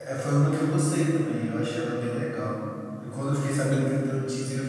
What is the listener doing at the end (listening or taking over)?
listening